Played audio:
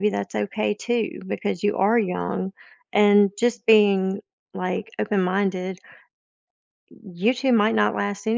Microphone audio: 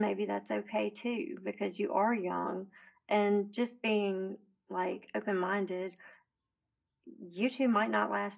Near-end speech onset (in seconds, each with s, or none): none